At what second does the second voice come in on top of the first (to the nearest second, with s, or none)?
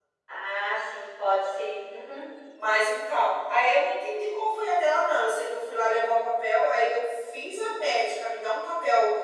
none